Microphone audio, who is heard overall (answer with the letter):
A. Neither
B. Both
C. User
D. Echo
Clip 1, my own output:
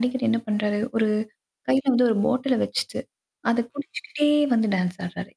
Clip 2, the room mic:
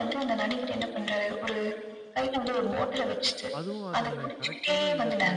B